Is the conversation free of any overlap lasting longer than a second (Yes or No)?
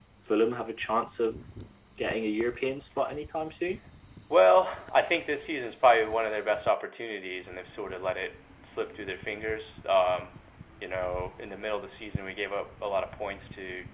Yes